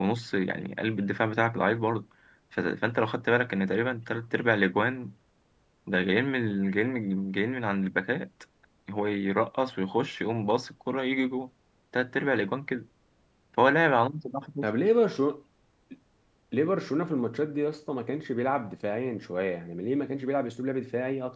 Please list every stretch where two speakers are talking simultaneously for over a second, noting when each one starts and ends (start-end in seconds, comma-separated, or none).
none